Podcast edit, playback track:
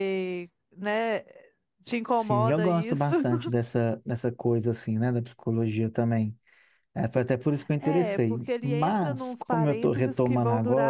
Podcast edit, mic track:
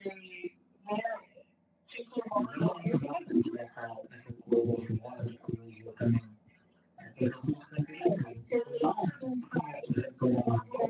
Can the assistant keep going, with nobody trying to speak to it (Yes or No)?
Yes